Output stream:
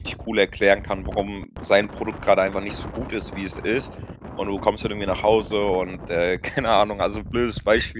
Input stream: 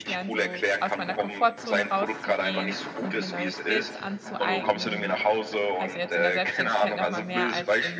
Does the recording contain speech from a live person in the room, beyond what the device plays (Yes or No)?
Yes